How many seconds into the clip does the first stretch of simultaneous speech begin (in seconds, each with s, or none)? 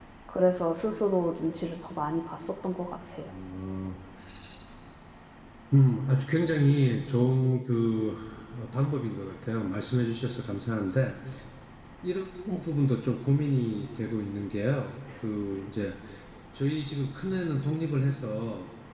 none